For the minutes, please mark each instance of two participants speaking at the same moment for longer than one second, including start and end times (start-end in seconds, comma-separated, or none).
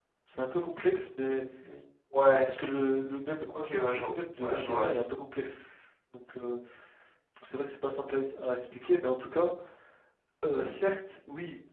3.5-4.9